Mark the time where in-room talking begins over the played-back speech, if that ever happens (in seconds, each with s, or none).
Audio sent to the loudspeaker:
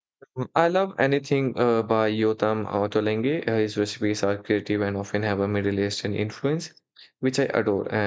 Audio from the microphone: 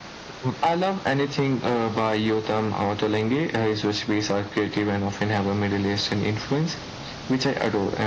none